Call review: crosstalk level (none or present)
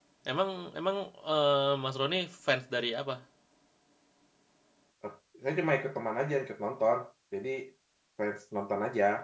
none